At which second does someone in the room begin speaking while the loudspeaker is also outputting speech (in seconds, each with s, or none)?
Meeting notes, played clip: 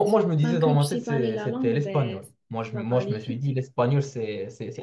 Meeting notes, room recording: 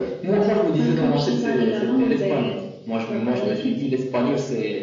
none